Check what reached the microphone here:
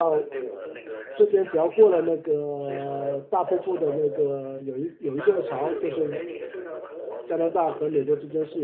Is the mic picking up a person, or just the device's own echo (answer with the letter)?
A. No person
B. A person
B